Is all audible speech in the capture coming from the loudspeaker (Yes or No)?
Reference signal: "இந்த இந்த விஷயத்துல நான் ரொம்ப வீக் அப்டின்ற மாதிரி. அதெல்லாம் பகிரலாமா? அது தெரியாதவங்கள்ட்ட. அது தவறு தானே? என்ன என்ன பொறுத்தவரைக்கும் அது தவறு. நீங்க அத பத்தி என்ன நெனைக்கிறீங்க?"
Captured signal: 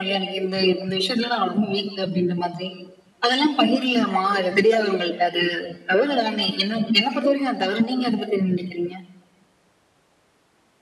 Yes